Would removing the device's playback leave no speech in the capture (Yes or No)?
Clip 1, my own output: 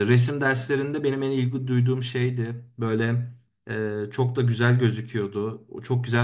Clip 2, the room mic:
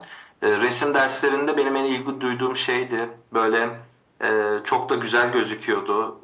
Yes